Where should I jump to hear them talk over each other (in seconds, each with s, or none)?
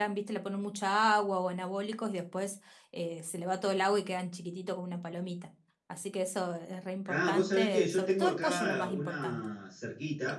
7.1 s